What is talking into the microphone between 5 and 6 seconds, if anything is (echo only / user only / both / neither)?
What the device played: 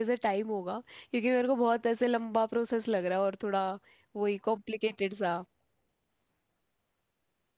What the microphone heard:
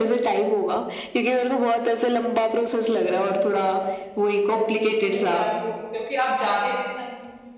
both